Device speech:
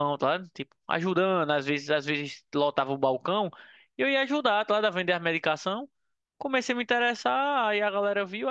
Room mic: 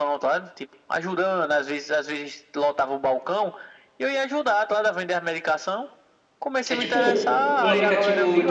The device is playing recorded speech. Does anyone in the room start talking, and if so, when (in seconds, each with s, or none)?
6.7 s